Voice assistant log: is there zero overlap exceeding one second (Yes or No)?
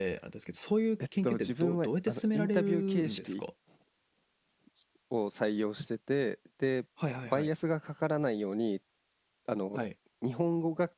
No